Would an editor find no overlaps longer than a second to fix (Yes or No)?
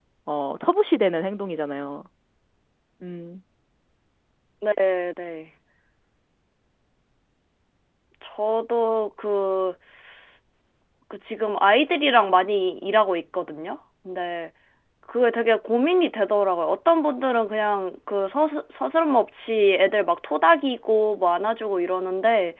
Yes